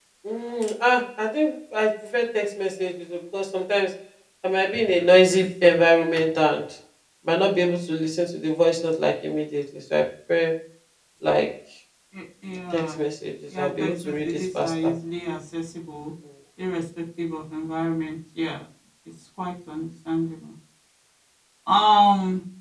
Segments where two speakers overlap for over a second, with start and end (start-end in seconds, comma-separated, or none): 13.6-14.9